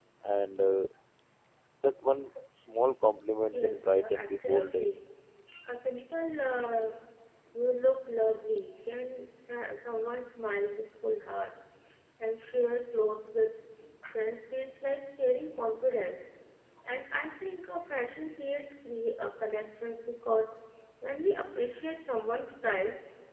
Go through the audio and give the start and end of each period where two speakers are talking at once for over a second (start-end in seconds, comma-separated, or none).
3.5-4.9